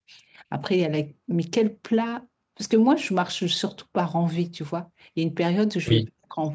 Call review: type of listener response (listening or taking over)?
listening